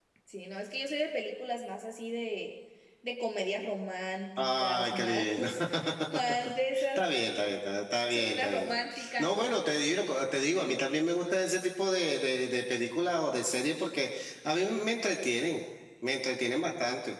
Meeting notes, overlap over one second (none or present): present